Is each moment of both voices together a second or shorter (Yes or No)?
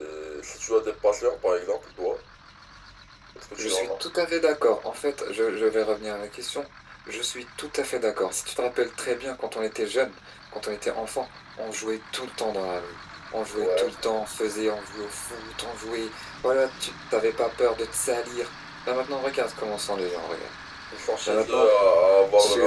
Yes